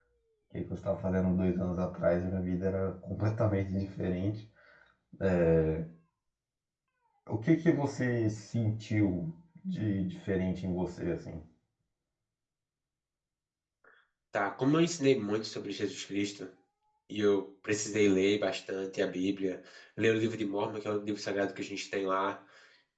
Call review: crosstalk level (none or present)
none